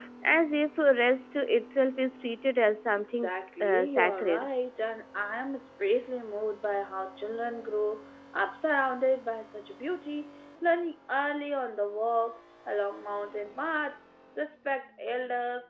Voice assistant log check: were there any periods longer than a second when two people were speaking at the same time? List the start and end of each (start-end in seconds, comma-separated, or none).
3.2-4.5